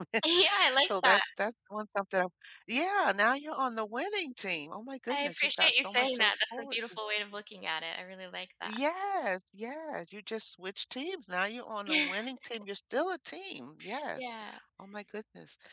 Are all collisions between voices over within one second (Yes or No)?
No